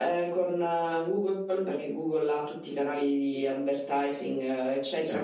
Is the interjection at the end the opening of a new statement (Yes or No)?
No